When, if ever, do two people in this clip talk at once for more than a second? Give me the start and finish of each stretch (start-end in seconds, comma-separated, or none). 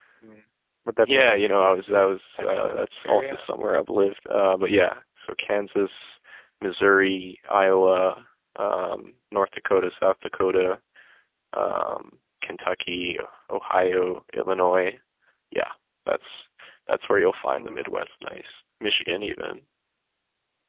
1.0-3.4